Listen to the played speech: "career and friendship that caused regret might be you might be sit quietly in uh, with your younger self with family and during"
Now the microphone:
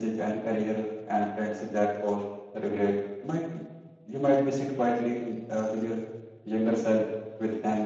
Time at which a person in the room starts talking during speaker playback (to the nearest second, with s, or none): none